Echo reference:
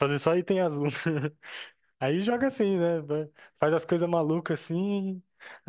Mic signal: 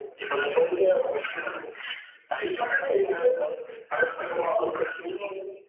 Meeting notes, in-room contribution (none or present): none